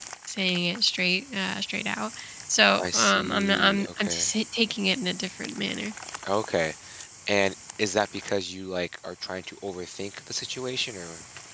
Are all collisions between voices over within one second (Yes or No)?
No